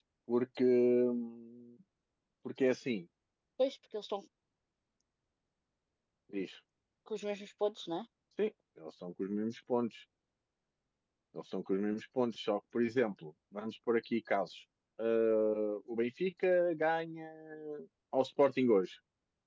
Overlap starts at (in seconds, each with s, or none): none